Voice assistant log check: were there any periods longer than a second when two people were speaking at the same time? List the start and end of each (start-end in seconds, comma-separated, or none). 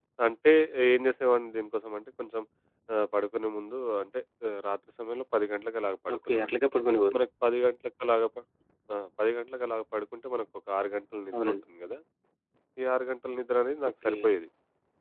none